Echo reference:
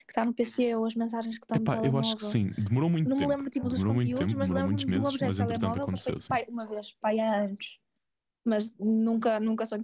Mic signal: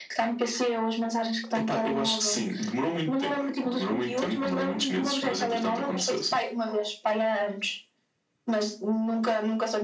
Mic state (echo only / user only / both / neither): echo only